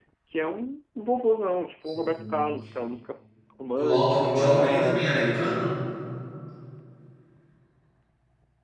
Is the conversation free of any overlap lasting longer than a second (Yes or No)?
No